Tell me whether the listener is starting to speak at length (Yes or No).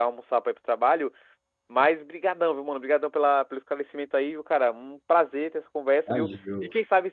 No